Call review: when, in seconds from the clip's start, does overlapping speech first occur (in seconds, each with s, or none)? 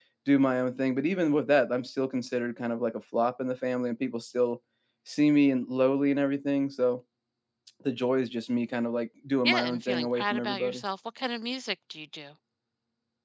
9.4 s